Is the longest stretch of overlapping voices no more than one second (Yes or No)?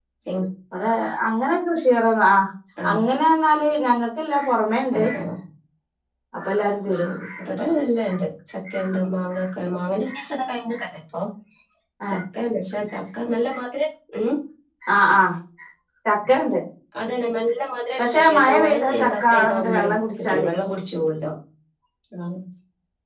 No